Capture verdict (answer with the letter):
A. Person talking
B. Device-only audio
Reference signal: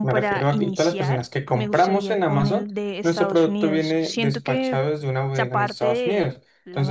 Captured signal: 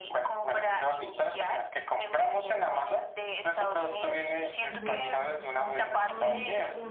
A